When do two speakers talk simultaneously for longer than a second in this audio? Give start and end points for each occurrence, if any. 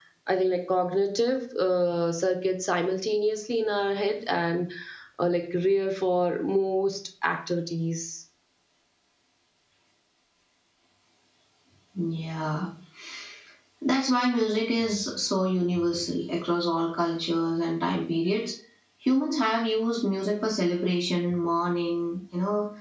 none

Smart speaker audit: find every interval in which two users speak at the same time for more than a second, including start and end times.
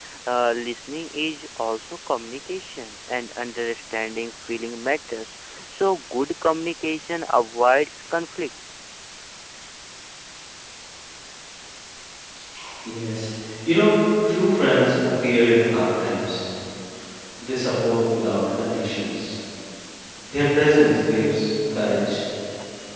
none

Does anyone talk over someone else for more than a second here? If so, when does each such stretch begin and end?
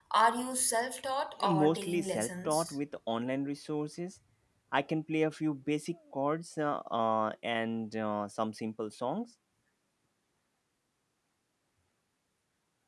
1.5-2.8

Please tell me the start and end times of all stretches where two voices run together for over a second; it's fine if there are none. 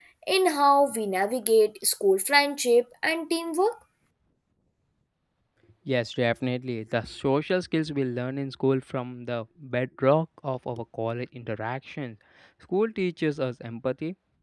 none

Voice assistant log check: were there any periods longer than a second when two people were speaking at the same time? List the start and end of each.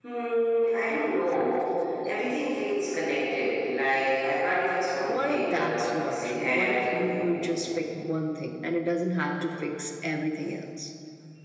5.1-7.3

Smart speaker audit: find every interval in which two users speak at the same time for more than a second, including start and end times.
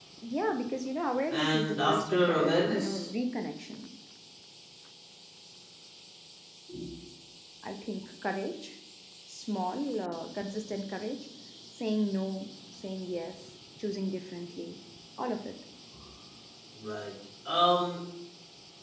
1.3-3.1

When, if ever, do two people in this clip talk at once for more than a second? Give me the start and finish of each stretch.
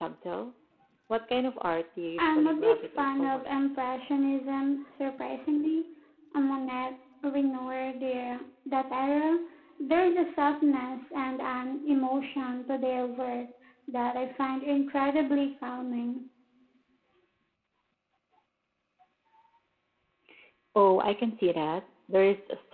2.2-3.9

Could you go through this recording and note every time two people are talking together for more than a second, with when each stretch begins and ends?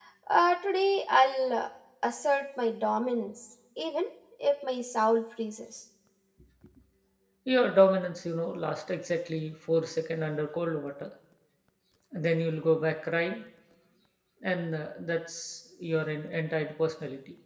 none

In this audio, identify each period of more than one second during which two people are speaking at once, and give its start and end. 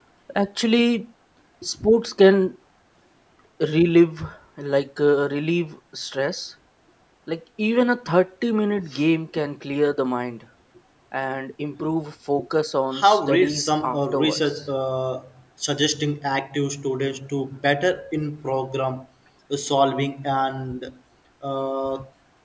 13.0-14.6

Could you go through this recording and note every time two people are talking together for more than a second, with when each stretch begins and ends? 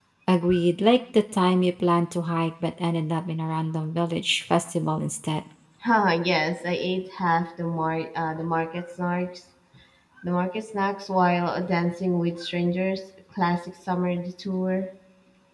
none

